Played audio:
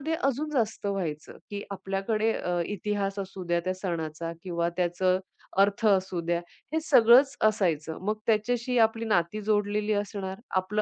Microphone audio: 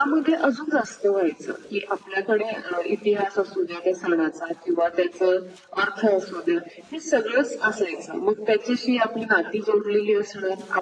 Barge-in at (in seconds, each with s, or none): none